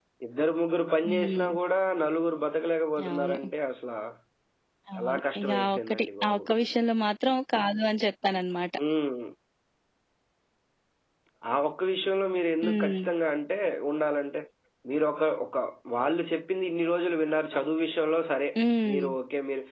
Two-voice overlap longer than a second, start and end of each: 5.0-6.4

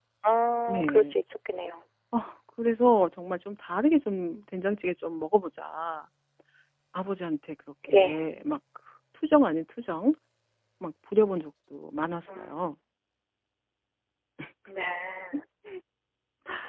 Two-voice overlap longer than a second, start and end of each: none

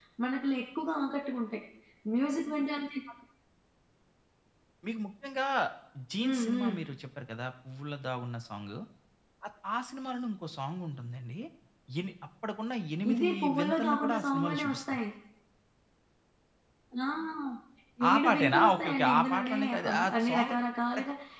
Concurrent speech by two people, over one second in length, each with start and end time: 13.1-15.0, 18.1-20.5

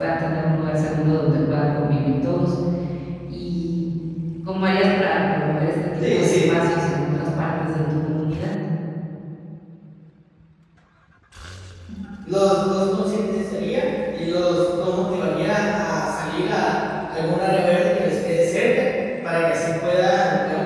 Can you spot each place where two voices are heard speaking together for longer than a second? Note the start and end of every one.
none

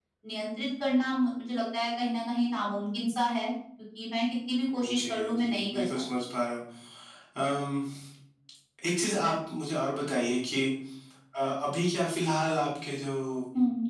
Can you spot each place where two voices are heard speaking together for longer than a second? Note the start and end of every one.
4.8-6.0

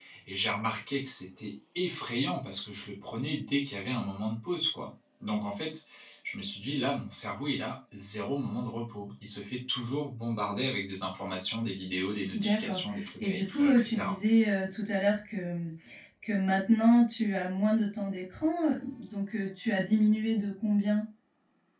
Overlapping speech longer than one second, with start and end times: 12.3-14.2

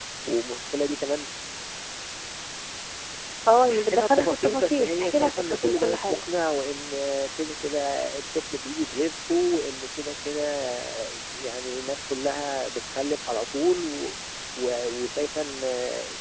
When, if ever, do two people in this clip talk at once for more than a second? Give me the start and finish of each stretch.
3.5-6.2

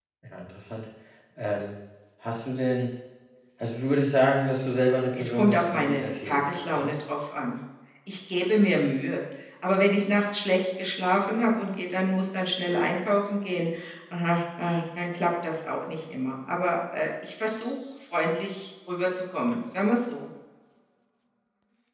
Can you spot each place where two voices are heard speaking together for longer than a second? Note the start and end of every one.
5.2-6.9

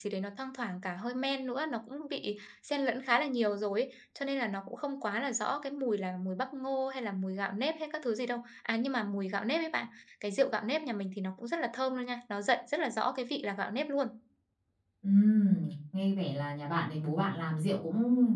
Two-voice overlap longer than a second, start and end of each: none

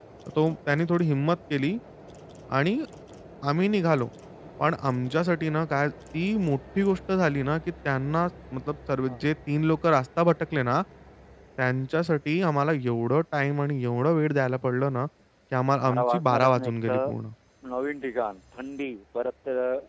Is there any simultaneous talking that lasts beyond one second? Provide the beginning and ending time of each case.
15.8-17.1

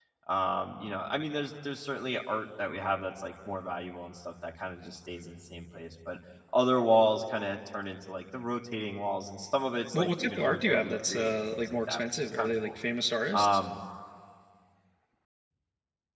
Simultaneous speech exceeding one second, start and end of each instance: 9.9-12.7

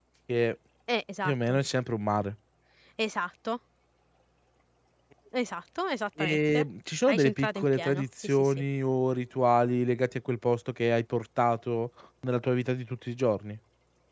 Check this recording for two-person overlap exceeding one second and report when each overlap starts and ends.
7.1-8.6

